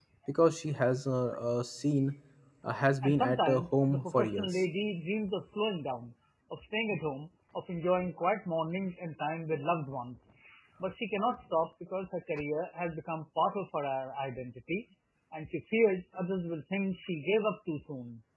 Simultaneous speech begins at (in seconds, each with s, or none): 3.0 s